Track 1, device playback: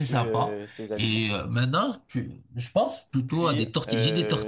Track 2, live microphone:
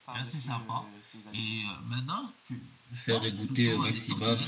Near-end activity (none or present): present